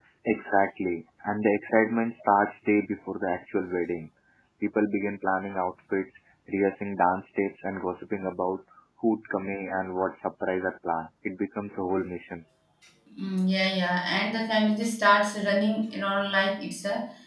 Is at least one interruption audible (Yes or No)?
No